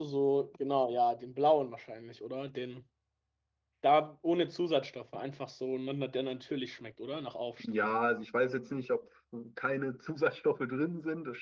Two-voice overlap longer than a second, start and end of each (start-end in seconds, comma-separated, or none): none